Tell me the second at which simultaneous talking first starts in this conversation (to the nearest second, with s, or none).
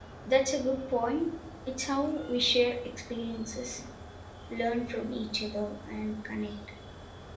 none